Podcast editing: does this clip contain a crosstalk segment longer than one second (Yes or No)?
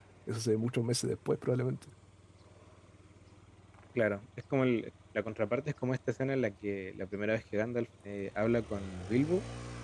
No